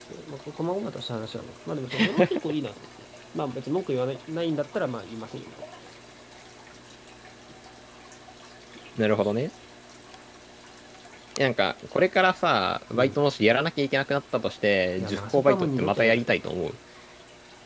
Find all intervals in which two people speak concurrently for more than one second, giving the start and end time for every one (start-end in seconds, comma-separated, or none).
15.0-16.4